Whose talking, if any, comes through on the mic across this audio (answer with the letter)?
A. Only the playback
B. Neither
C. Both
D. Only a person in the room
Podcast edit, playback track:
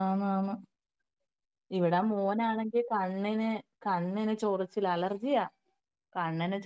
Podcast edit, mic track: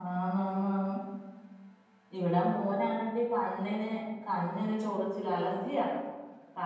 A